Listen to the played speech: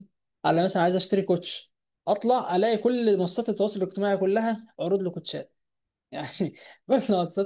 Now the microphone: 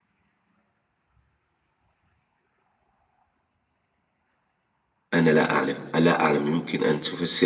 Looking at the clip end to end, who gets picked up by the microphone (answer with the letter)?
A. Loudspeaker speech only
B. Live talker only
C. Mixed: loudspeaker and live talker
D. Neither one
B